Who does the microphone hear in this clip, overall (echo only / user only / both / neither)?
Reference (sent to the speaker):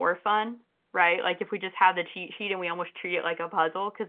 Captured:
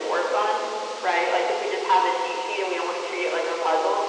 echo only